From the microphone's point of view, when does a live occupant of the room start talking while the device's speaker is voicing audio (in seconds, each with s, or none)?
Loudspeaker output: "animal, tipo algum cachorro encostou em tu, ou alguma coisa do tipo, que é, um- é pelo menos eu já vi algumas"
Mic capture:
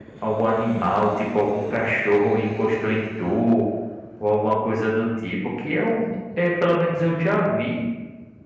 none